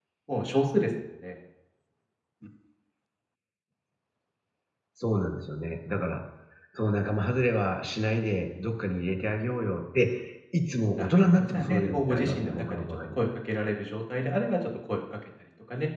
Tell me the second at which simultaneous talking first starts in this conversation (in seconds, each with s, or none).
10.9 s